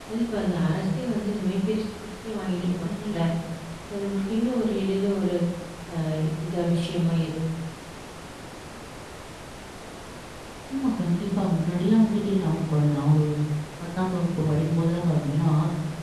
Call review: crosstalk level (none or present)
none